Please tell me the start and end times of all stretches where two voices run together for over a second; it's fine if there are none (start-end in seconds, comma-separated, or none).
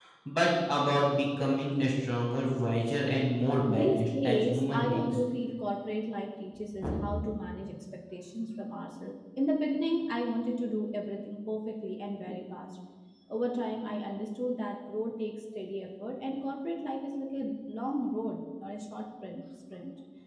3.7-5.2